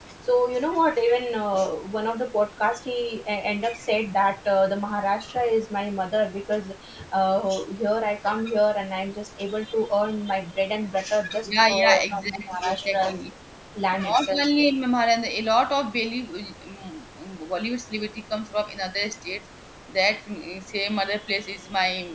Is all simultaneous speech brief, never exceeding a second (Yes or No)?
No